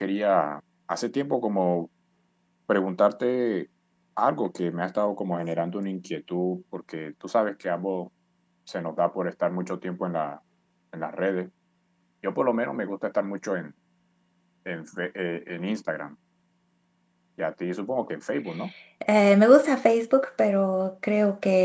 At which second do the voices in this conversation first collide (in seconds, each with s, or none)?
none